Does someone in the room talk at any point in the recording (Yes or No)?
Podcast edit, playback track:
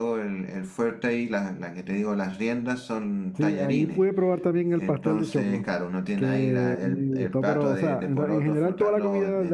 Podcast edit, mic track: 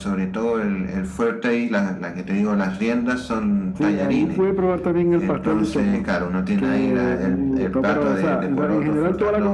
No